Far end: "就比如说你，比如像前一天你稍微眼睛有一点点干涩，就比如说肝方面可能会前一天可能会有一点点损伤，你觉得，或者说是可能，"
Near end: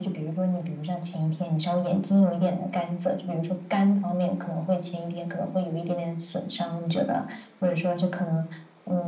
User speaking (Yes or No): No